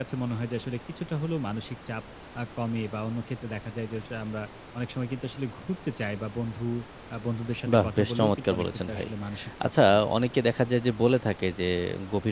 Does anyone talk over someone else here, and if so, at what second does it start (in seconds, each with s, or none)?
7.7 s